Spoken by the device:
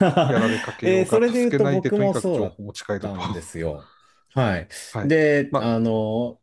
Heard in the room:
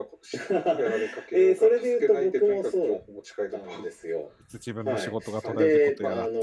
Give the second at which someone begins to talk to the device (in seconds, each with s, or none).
4.4 s